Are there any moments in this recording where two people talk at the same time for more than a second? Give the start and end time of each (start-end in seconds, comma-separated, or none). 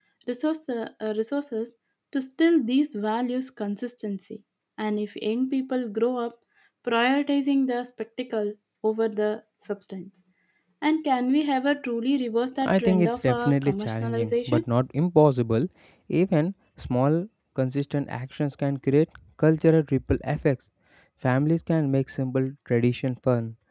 12.6-14.6